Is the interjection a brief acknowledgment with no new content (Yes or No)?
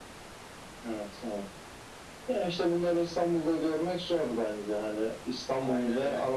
Yes